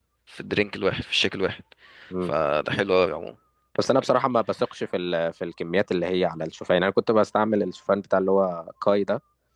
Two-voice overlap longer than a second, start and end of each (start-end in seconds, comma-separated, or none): none